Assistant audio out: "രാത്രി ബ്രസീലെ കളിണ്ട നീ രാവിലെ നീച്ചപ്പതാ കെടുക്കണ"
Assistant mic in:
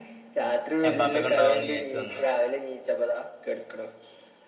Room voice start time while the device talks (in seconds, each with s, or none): 0.9 s